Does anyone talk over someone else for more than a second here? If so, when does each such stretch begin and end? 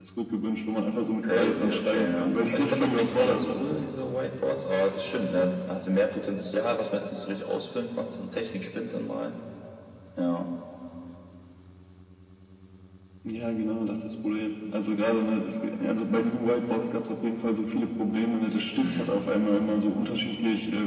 1.3-3.5

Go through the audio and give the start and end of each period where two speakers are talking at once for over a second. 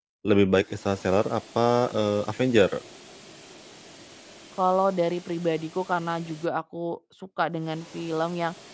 none

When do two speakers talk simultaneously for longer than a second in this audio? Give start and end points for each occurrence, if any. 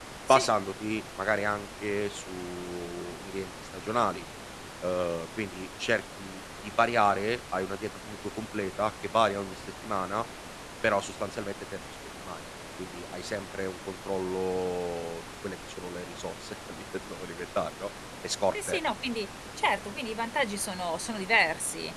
none

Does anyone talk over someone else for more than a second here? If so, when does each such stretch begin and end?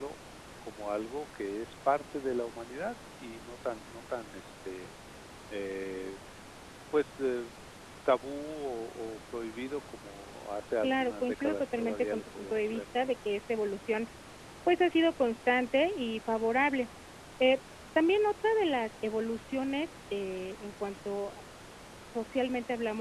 10.8-12.8

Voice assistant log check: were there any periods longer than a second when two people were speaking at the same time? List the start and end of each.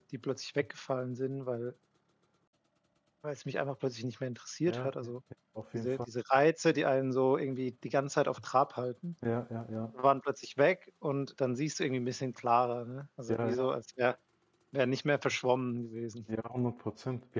none

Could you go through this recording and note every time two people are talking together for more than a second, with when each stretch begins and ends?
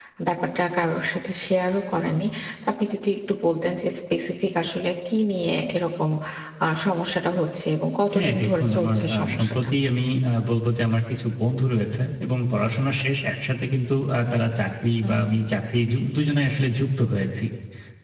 8.1-9.5

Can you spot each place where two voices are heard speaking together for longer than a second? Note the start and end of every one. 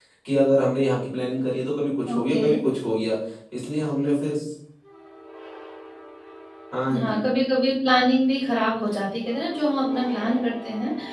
none

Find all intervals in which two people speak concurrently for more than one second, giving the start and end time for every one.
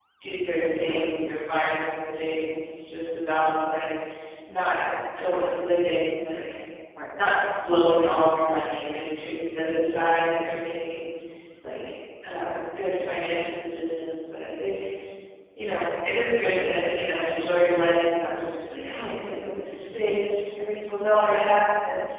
18.6-20.2

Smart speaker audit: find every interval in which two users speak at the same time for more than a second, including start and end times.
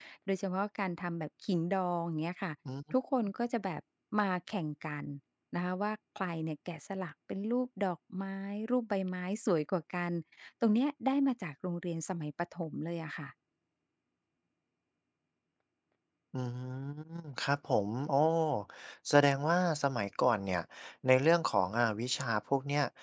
none

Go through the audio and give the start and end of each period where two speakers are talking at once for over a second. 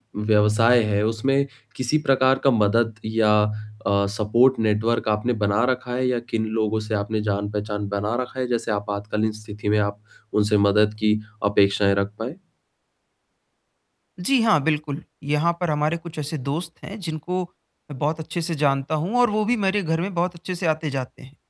none

